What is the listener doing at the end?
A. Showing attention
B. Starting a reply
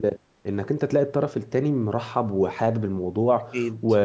A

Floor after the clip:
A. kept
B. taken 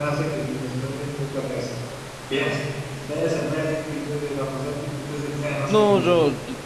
B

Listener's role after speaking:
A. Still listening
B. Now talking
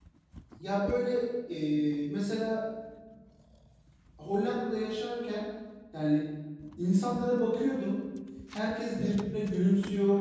A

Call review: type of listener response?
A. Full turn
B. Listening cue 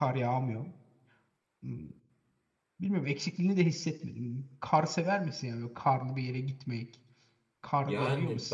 A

